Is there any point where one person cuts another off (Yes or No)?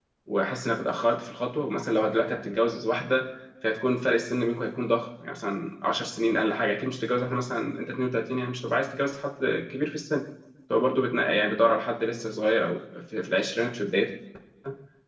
No